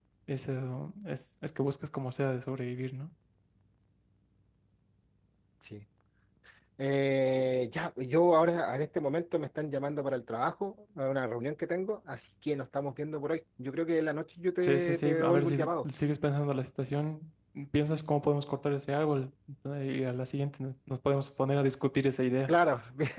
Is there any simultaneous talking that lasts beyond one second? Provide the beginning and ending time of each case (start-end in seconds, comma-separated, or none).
14.6-15.9